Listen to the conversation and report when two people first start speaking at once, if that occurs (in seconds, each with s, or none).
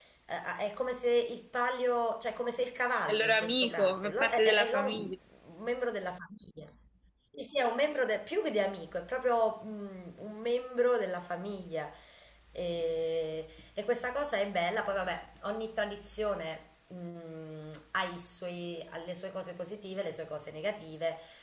3.1 s